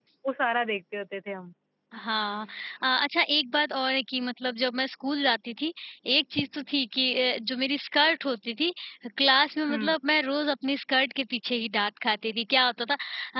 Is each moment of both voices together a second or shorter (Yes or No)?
Yes